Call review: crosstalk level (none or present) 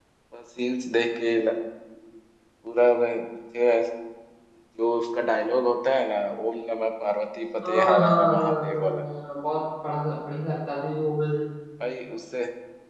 present